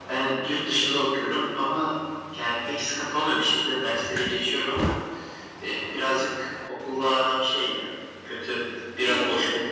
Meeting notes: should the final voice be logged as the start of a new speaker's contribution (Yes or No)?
No